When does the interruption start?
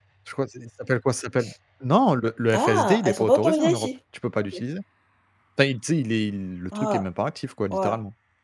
2.5 s

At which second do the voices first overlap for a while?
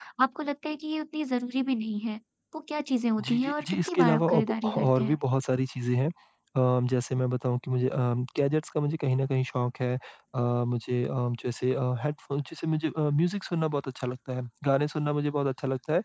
3.3 s

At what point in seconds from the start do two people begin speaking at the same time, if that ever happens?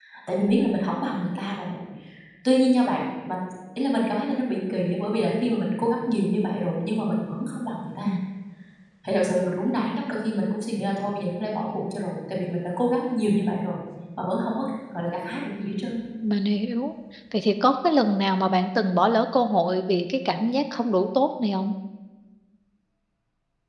none

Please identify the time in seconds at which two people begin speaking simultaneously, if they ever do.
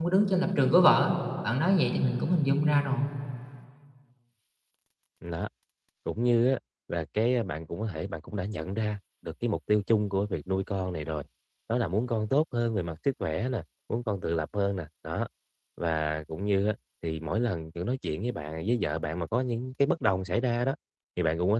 none

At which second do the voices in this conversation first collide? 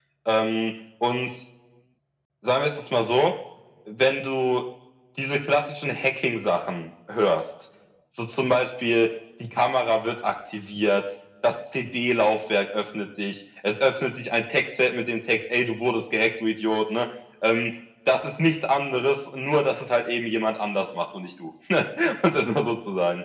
none

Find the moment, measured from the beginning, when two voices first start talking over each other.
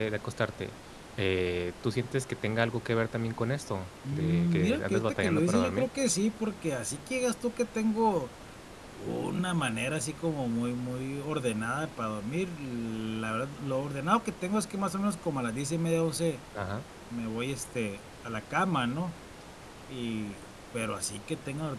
4.0 s

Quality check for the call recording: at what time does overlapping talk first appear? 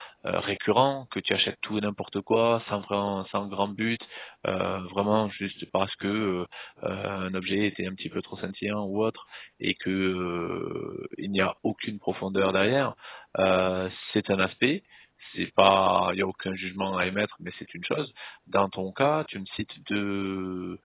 none

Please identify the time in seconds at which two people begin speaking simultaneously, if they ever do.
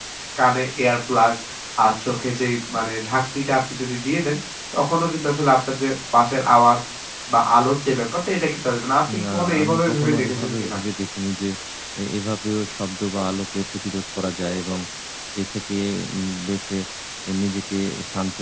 9.1 s

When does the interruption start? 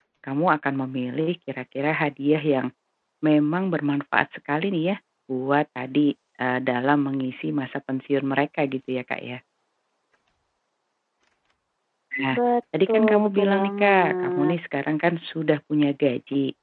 12.9 s

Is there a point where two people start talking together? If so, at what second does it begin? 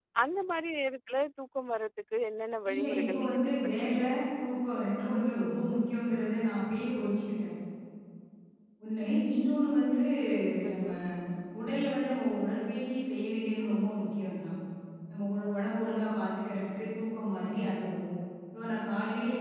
2.7 s

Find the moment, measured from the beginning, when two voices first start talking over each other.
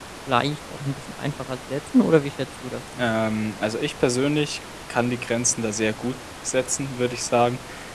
none

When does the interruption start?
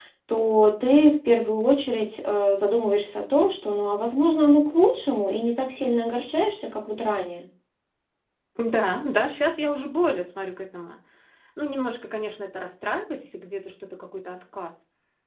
none

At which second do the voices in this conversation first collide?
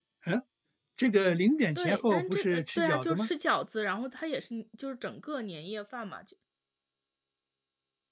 1.8 s

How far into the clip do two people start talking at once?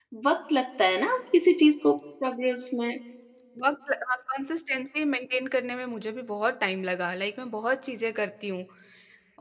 none

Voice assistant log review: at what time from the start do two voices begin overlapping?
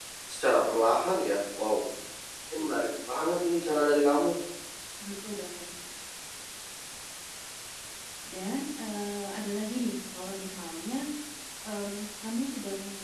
none

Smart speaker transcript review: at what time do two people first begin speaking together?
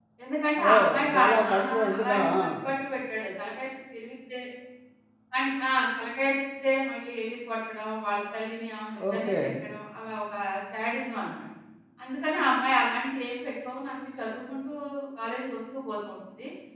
0.7 s

